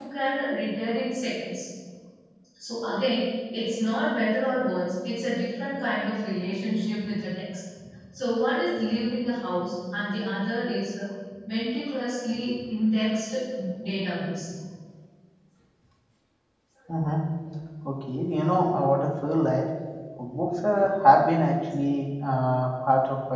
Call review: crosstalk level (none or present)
none